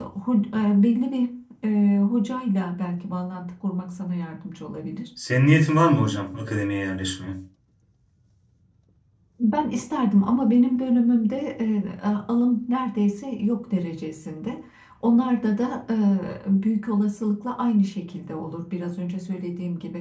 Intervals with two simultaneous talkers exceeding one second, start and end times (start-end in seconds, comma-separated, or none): none